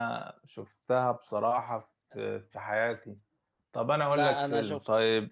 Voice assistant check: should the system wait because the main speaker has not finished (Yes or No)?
No